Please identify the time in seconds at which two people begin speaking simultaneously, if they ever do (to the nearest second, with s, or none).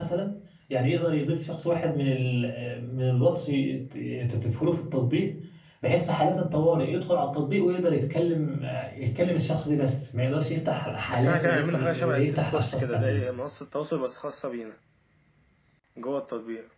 11 s